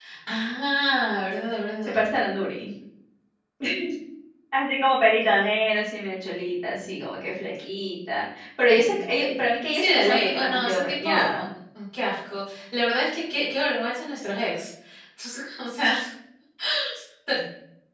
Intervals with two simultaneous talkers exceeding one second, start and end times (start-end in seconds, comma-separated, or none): 9.7-11.4